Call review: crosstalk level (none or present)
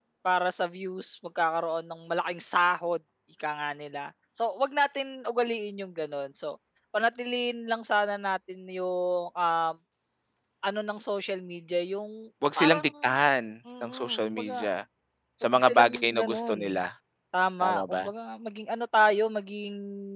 present